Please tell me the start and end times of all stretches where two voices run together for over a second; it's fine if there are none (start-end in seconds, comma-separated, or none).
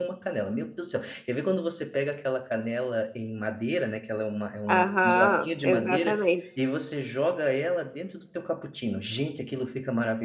4.7-6.2